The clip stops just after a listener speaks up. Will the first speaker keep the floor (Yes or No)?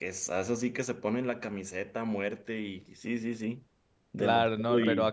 No